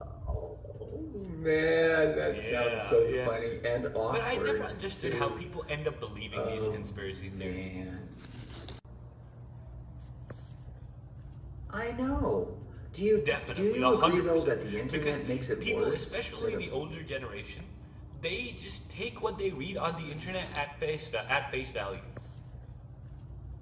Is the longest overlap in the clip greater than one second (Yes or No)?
Yes